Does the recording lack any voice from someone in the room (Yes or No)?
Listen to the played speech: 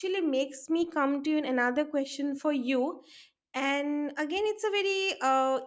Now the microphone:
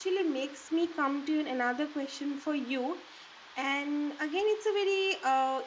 Yes